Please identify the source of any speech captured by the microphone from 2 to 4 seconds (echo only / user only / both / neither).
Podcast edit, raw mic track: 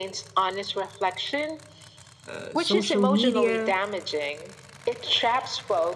both